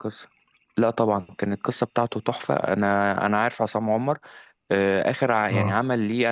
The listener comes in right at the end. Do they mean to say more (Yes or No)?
No